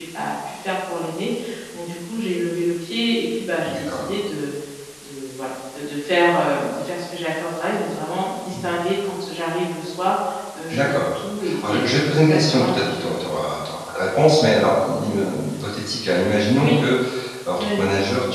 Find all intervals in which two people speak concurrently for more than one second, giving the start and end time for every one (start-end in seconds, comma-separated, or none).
11.7-13.2